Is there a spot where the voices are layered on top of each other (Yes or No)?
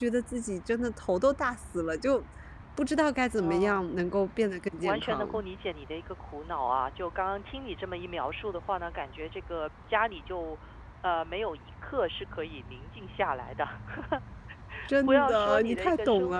Yes